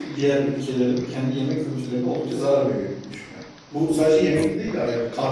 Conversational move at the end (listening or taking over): listening